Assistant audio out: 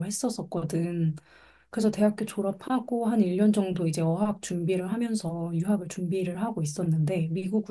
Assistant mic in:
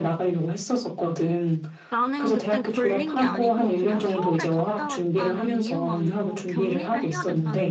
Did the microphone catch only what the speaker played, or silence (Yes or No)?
No